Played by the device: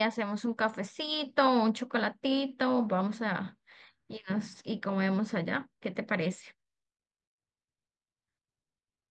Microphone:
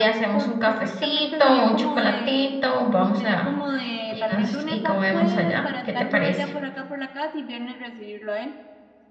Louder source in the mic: echo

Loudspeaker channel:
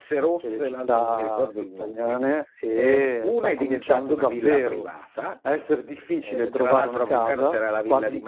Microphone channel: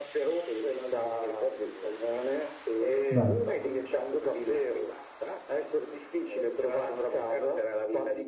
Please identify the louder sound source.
user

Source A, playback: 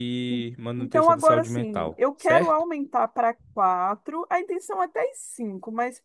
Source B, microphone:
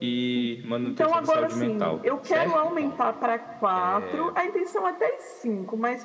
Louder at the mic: echo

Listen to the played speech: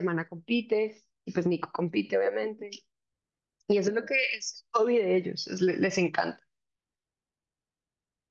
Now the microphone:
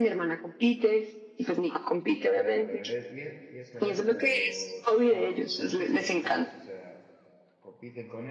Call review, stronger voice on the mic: echo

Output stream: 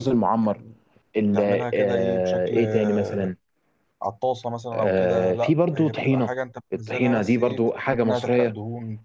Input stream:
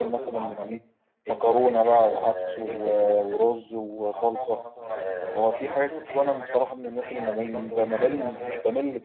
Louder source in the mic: user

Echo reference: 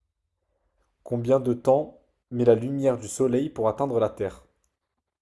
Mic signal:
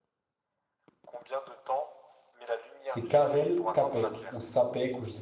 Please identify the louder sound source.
user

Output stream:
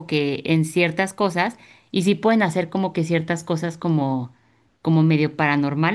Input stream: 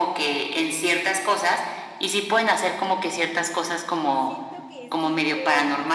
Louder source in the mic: echo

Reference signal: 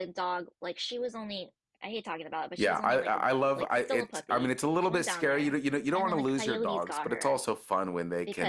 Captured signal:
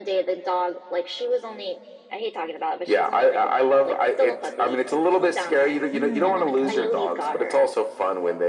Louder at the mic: echo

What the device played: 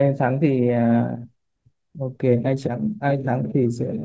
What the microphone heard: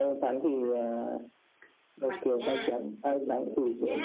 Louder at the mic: echo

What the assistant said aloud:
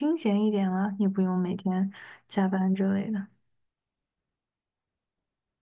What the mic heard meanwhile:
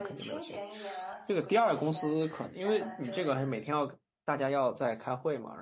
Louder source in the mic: user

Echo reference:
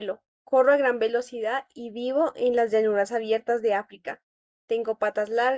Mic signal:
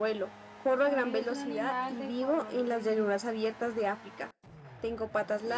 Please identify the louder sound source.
echo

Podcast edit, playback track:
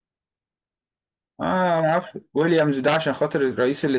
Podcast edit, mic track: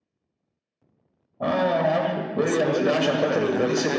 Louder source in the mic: echo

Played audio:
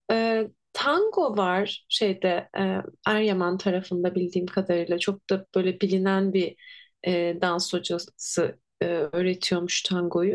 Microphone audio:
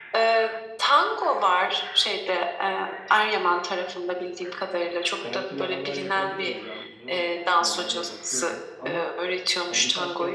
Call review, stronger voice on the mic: echo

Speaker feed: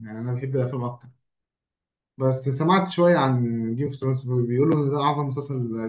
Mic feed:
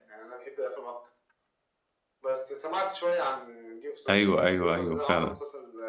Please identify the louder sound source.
user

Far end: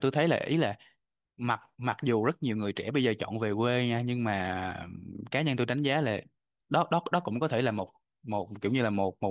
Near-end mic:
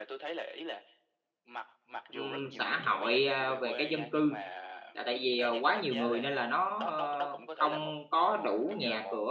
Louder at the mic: user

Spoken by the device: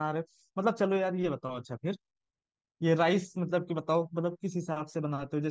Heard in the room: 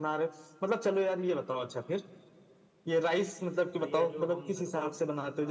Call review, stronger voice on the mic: echo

